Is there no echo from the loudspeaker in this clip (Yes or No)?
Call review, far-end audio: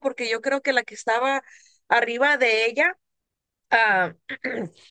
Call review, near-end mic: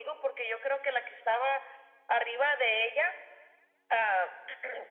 No